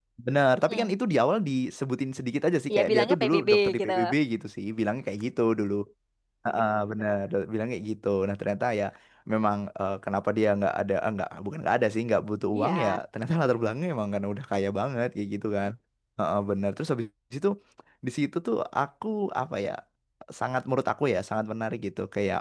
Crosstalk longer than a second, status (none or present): present